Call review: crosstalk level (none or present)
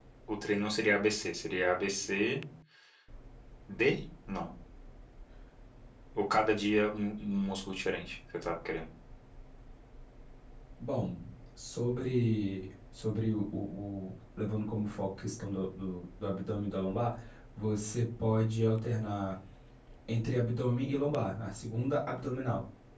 none